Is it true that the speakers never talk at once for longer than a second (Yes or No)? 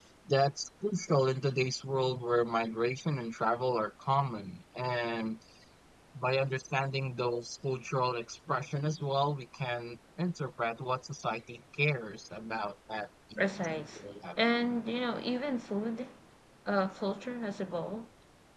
No